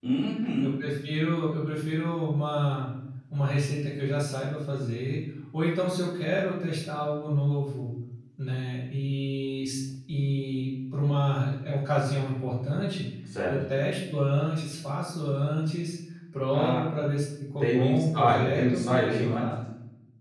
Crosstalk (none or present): present